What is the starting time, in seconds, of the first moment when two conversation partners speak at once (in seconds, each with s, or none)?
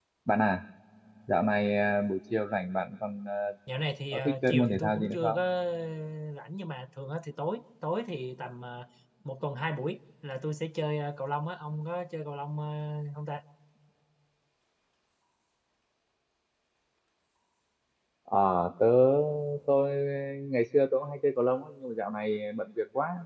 4.1 s